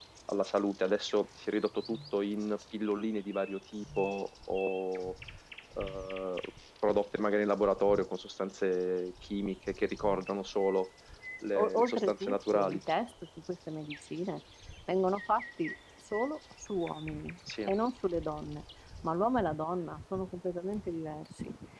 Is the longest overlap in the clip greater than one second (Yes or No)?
Yes